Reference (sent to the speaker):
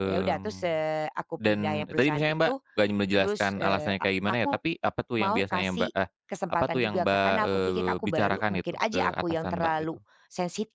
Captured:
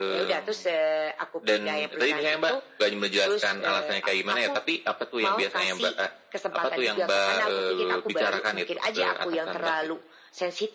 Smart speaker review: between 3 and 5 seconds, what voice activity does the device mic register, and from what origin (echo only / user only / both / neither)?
echo only